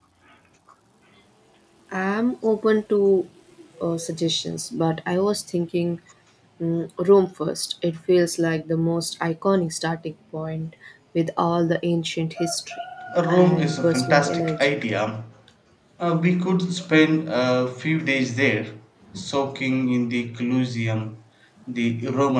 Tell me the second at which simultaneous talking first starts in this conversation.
13.3 s

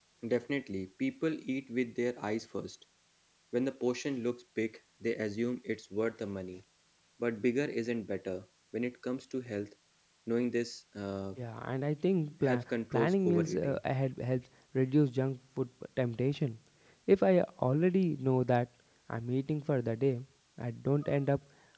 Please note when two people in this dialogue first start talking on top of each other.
12.4 s

